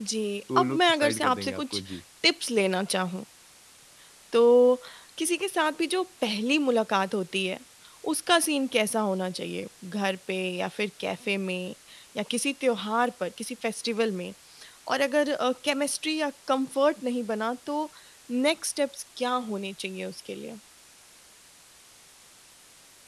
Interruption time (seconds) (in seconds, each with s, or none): 0.6 s